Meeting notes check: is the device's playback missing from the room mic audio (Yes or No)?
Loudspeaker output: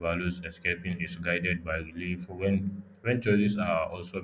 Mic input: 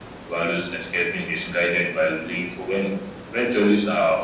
No